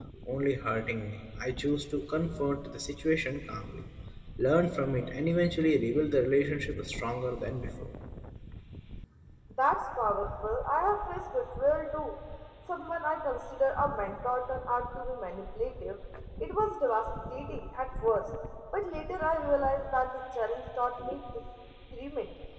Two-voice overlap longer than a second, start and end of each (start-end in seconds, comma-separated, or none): none